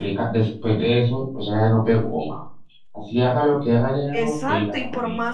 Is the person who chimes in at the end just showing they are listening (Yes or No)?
No